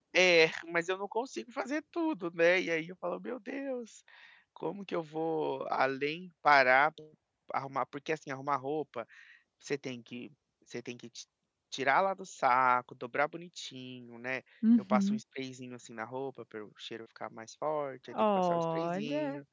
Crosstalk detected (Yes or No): Yes